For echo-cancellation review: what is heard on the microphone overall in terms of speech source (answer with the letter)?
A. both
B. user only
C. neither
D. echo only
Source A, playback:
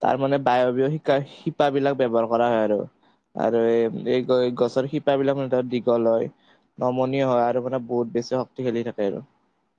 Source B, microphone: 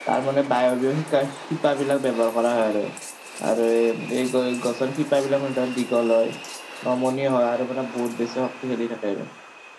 D